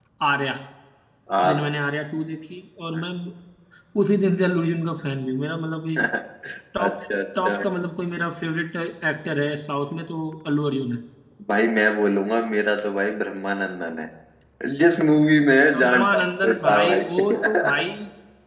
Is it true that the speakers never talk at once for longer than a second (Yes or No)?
No